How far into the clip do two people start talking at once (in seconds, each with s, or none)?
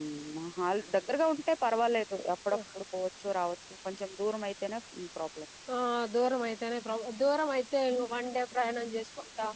none